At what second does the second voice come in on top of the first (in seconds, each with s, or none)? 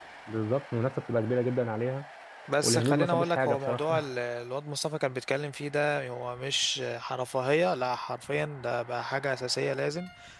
2.6 s